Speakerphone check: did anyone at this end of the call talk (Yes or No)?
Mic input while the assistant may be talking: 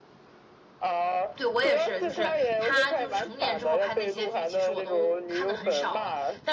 Yes